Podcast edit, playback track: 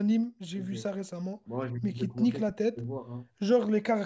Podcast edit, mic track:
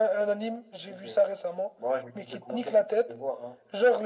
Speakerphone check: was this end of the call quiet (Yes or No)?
Yes